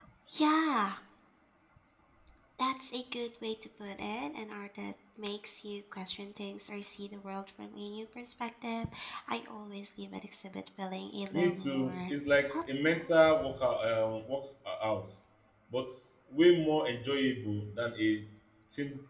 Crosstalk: present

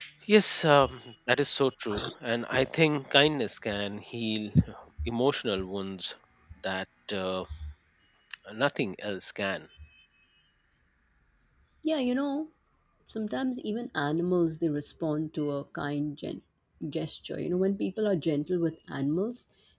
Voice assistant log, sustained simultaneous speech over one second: none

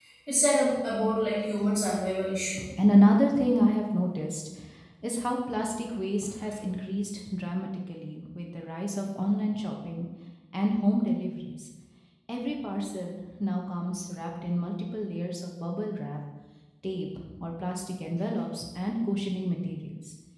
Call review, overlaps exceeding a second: none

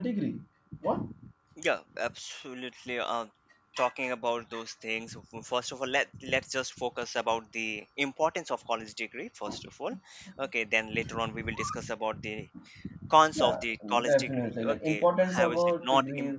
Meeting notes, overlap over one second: present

